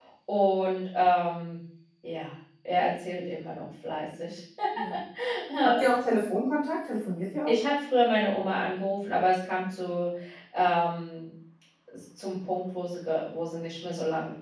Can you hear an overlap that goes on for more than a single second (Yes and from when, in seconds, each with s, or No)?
No